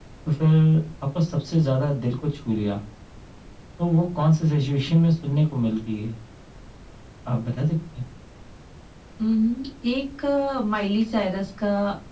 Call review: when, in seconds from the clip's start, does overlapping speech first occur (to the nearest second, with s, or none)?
none